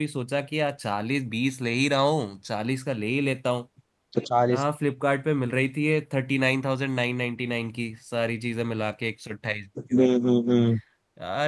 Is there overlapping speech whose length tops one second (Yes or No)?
No